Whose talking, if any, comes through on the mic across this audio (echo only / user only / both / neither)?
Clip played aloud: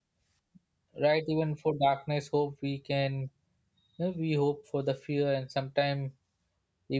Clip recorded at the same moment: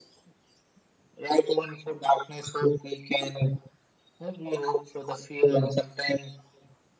echo only